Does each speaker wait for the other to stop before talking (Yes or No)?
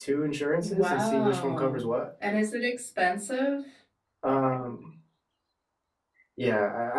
No